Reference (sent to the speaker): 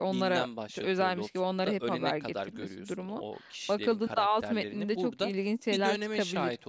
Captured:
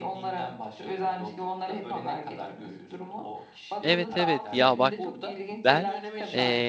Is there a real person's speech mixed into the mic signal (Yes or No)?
Yes